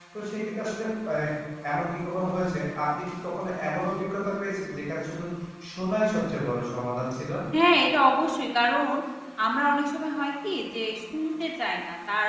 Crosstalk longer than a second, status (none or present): none